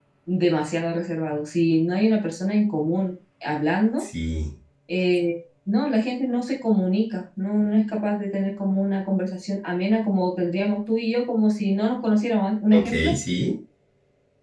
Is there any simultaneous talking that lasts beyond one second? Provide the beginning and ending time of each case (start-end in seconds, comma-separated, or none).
none